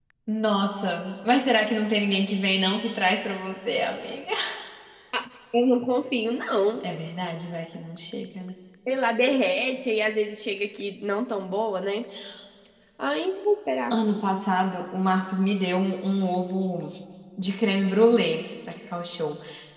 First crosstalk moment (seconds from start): none

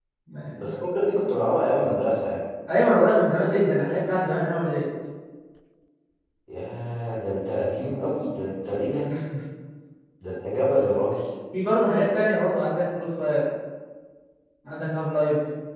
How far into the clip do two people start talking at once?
none

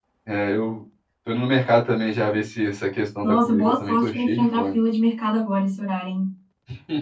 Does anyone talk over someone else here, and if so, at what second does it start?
3 s

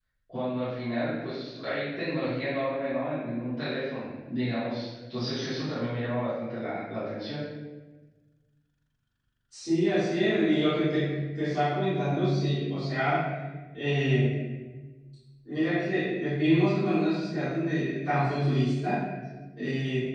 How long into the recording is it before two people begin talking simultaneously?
none

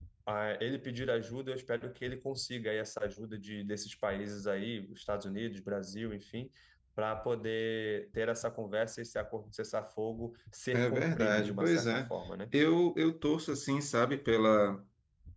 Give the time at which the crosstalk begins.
11 s

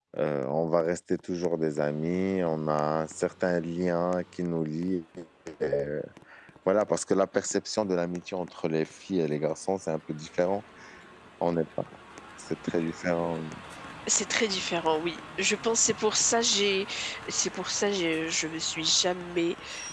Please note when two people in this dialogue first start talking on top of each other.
none

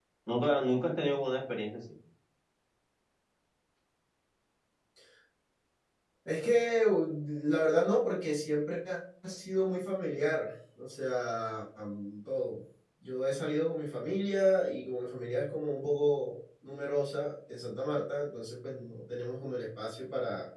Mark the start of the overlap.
none

